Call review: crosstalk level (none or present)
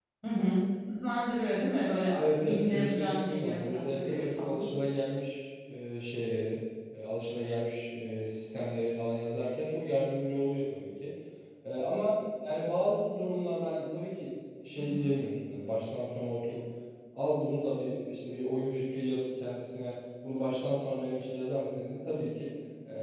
present